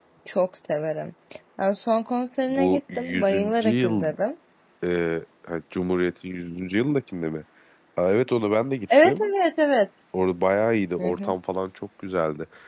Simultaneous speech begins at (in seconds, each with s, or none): 2.5 s